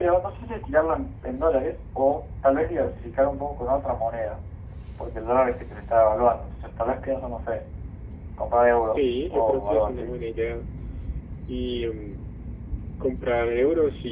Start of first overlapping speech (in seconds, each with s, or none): 8.9 s